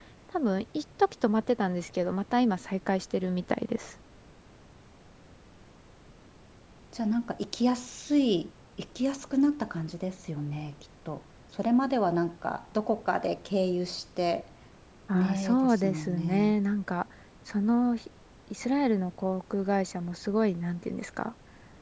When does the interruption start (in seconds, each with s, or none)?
15.1 s